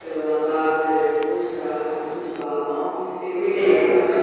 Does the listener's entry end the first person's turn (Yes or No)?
No